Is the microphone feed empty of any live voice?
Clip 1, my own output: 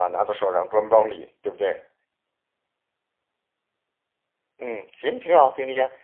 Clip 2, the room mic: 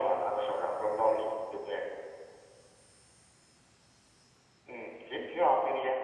Yes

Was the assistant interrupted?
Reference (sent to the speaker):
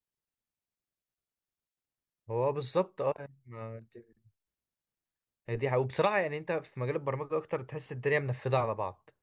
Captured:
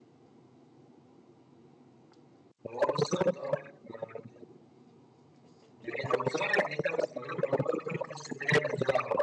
No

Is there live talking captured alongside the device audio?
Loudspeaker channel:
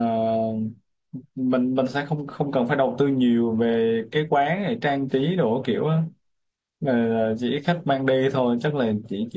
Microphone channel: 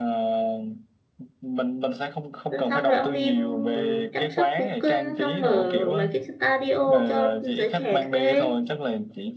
Yes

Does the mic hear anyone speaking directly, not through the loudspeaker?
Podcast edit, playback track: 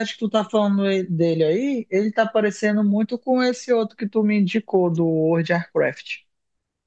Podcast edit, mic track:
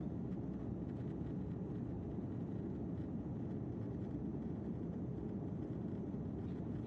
No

